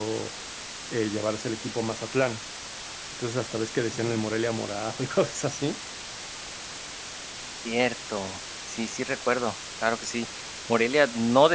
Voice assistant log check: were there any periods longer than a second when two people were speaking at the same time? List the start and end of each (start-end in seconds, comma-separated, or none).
none